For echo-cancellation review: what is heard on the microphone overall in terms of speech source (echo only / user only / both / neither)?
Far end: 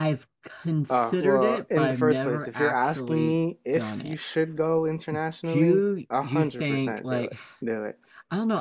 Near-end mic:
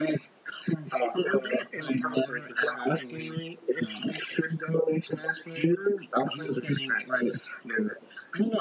echo only